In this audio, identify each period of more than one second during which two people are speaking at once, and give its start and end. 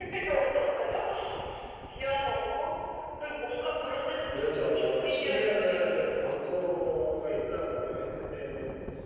4.3-6.4

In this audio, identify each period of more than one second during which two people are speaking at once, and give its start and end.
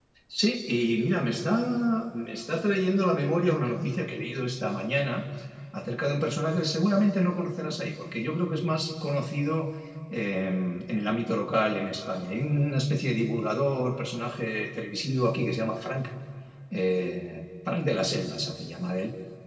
none

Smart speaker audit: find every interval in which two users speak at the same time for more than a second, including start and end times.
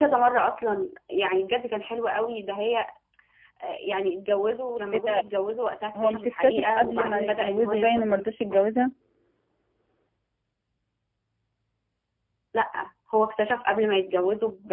6.0-8.2

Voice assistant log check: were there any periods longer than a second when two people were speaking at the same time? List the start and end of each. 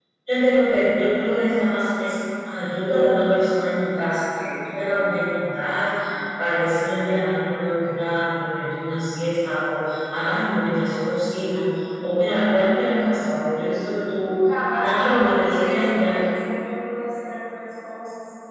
14.8-16.1

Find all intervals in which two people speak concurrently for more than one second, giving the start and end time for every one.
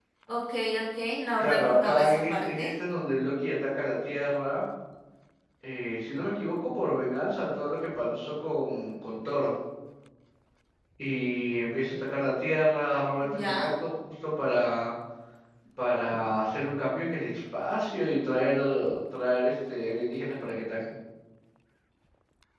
1.4-2.7

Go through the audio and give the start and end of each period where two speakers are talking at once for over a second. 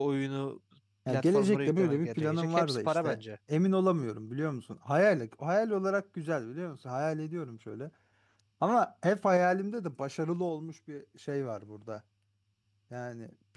1.1-3.2

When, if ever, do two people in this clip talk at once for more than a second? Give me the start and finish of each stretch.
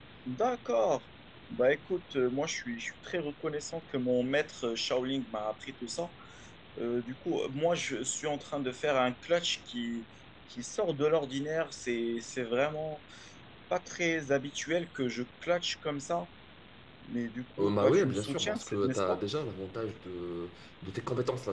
17.6-19.2

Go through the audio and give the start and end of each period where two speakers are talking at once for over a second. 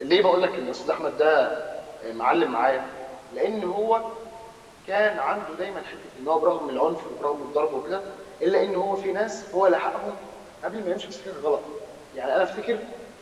none

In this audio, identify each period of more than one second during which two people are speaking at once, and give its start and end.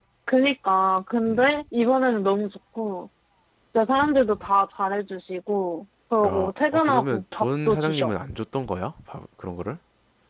6.2-8.1

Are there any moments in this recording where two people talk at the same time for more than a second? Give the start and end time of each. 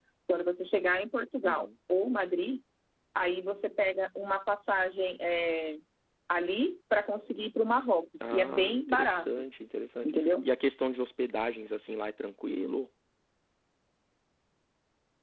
8.2-9.4

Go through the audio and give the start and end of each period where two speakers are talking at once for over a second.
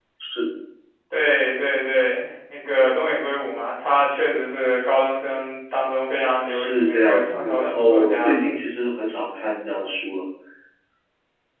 6.4-8.3

